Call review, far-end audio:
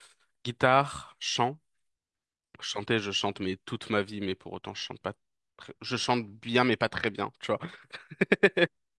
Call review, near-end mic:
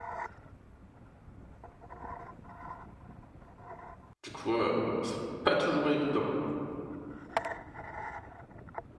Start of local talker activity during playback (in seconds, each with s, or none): 4.2 s